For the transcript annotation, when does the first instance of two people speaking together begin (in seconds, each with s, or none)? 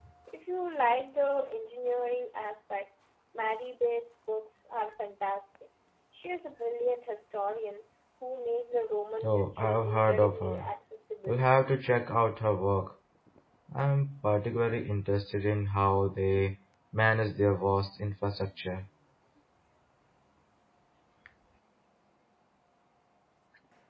9.2 s